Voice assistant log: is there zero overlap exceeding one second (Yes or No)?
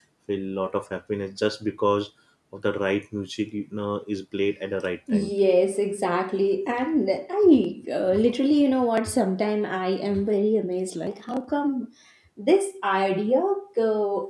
Yes